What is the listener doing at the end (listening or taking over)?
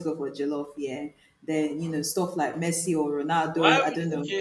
taking over